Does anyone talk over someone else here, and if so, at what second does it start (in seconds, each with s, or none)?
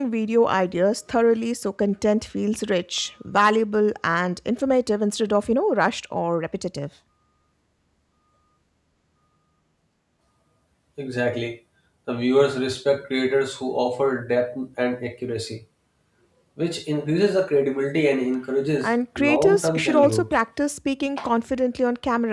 18.8 s